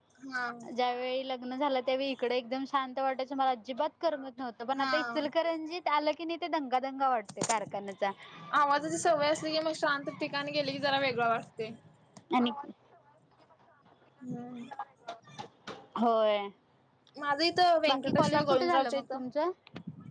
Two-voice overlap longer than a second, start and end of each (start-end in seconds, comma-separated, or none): 17.9-19.2